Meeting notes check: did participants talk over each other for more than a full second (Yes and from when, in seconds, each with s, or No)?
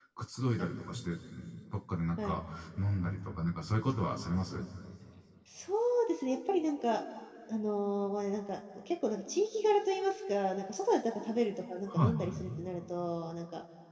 No